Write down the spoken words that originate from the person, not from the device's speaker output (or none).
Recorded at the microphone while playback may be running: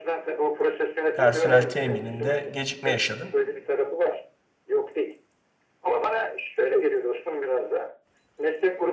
personel temininde gecikme yaşadın.